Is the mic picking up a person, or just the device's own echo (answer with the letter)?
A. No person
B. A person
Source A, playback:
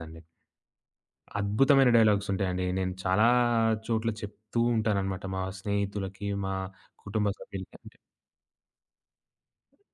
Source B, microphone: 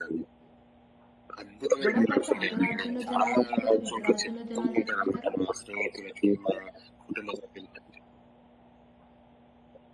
B